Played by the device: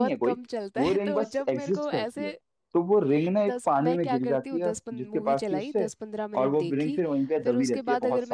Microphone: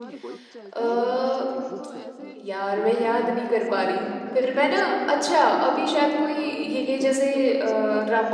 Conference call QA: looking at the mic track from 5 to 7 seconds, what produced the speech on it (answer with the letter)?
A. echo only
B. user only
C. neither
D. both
D